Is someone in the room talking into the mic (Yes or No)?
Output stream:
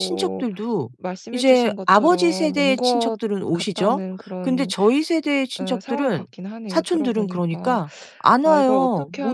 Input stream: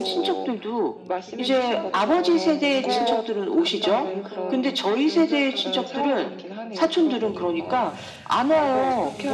Yes